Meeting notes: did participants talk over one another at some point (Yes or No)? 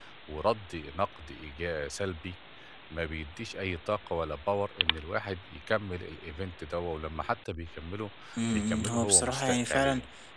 Yes